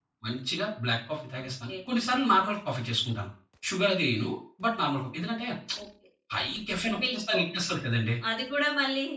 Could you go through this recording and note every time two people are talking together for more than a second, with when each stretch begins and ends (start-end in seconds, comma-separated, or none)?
none